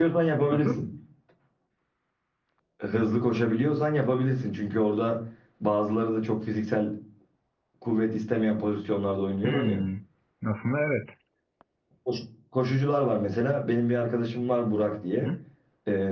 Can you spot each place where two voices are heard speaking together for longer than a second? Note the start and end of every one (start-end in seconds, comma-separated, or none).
none